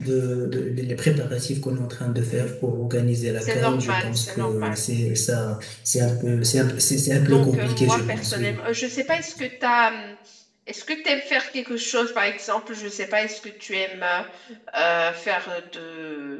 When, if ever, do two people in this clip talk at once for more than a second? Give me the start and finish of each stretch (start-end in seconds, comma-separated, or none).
3.4-4.8, 7.3-8.5